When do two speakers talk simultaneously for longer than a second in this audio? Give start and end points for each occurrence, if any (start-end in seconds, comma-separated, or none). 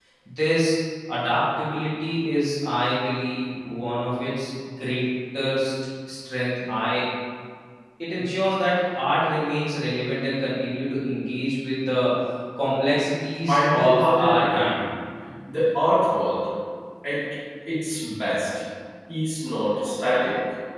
13.5-14.8